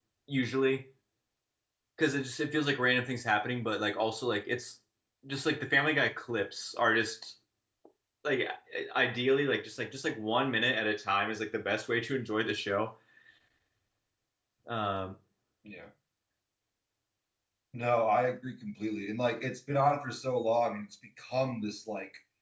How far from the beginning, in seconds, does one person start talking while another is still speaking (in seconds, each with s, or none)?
none